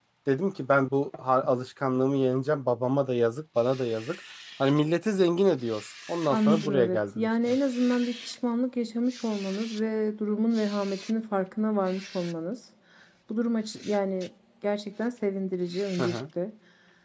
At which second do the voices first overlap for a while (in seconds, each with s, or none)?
6.3 s